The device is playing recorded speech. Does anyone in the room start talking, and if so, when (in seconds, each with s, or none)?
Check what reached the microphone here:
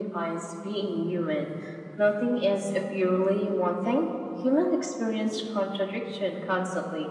none